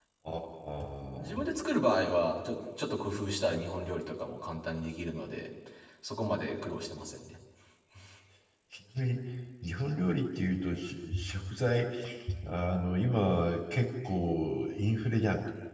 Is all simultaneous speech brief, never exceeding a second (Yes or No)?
Yes